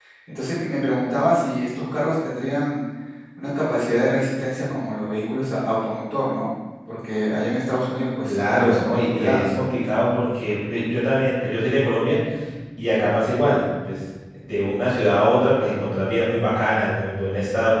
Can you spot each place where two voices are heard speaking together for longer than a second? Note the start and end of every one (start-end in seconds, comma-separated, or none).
8.2-9.4